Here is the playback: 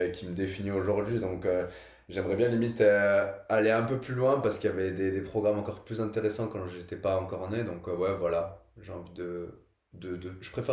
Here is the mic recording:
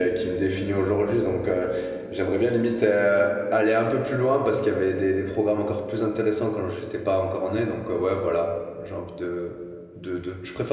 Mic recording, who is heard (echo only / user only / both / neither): echo only